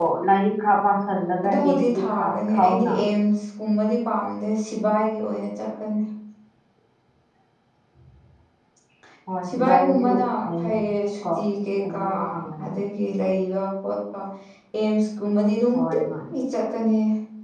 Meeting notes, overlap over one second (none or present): present